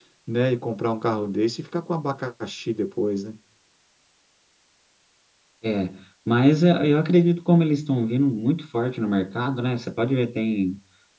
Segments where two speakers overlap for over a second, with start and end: none

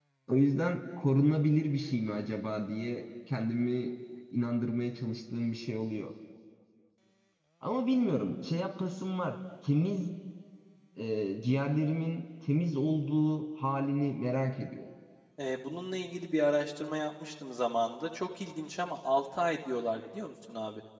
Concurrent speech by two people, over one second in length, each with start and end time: none

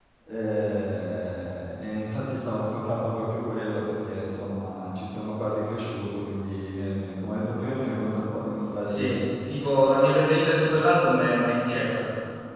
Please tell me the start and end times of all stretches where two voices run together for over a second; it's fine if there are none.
none

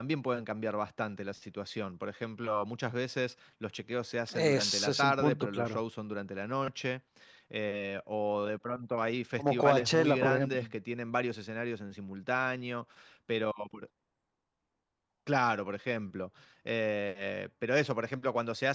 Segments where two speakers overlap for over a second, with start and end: 4.3-5.8, 9.4-10.6

